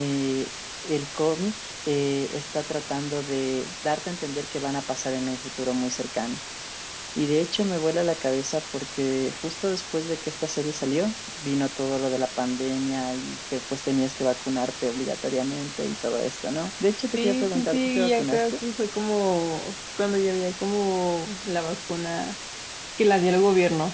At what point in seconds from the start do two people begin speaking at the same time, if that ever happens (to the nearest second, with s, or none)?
17 s